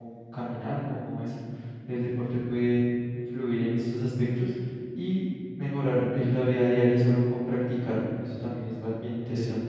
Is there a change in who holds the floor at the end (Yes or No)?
Yes